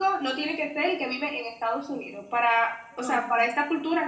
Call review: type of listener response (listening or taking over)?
listening